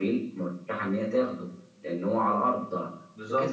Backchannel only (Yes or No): Yes